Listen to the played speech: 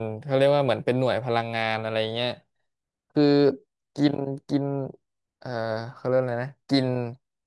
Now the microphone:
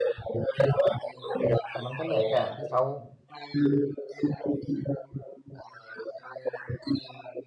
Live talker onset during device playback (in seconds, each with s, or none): 1.7 s